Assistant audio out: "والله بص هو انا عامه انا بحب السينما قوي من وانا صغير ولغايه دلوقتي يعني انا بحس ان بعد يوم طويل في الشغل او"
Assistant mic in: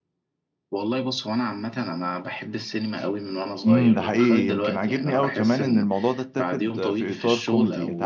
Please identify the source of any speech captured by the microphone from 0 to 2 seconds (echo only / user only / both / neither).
echo only